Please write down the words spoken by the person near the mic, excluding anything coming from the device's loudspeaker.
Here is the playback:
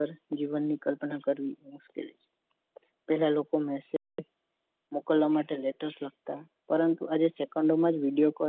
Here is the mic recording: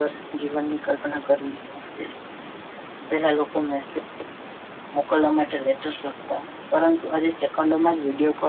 none

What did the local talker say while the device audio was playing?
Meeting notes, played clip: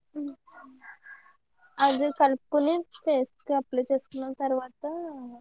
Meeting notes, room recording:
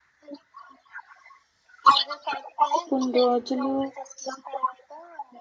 కొన్ని రోజులు

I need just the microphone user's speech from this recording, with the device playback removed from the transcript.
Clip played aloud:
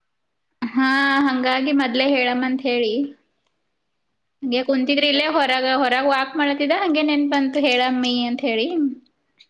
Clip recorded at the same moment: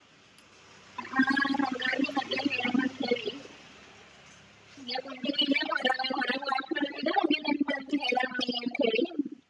none

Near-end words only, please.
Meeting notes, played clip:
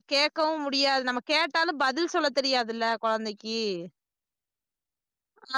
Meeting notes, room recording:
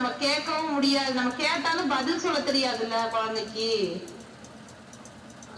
none

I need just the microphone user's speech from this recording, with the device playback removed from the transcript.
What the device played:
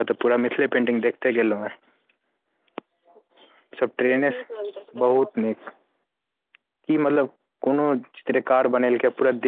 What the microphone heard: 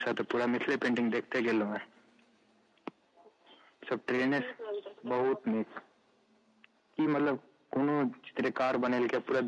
none

